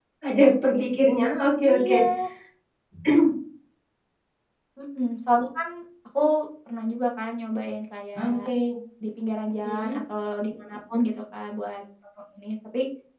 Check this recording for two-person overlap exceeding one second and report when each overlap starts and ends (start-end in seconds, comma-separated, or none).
none